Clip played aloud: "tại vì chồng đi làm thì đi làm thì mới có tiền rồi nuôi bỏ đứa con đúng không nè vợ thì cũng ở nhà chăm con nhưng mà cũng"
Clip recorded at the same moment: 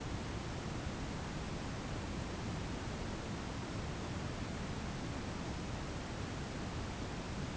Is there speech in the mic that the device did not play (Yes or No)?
No